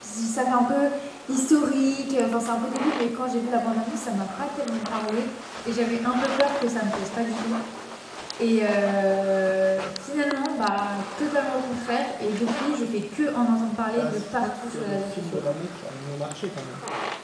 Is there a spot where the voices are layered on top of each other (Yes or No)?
Yes